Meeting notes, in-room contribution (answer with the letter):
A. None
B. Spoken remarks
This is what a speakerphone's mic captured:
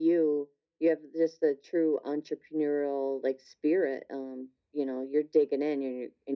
A